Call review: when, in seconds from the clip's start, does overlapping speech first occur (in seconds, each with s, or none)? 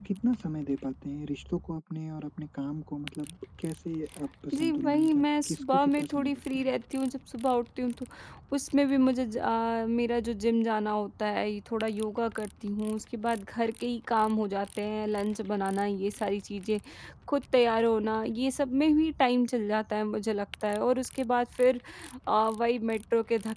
4.5 s